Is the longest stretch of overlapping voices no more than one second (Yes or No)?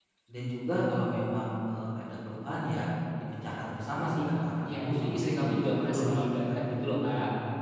No